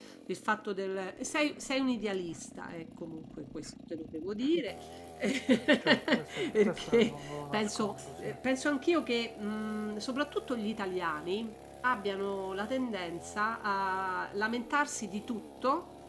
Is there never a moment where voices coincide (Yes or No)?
No